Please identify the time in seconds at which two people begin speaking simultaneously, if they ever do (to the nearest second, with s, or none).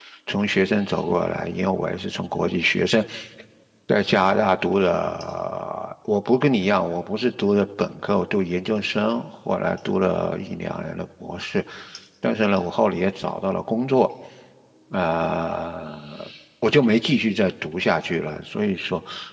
none